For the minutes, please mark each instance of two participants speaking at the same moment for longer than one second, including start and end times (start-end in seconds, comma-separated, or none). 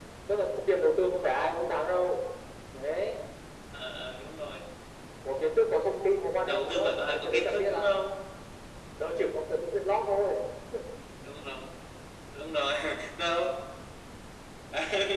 6.4-8.0